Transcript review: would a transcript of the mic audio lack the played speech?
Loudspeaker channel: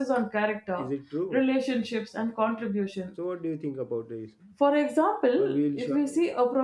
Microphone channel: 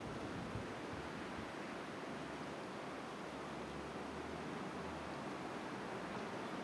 Yes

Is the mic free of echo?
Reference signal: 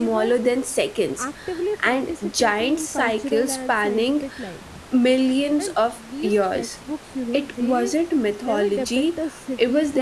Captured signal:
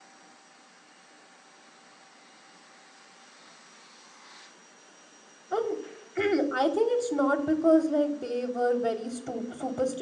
Yes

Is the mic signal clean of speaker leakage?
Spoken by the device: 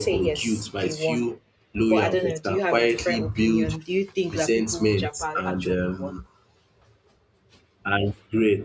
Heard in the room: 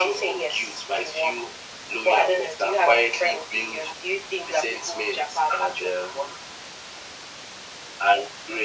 No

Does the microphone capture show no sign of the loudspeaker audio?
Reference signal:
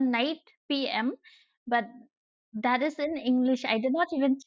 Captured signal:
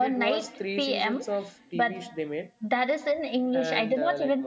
No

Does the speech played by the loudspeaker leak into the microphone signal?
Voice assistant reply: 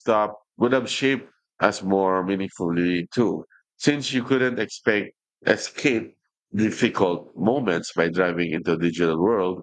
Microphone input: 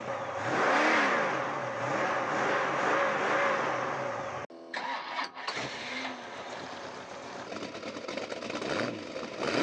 No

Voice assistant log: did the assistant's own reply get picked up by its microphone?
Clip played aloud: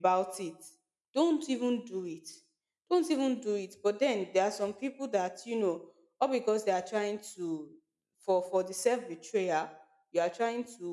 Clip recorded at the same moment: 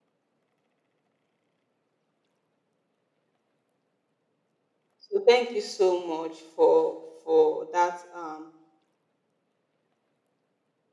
No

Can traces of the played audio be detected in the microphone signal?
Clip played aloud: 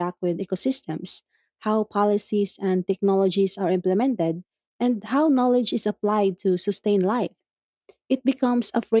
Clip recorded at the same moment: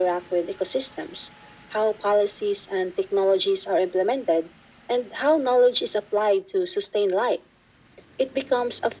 Yes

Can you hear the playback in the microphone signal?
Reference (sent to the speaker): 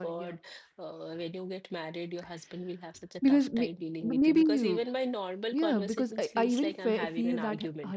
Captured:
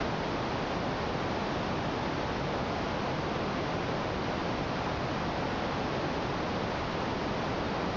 No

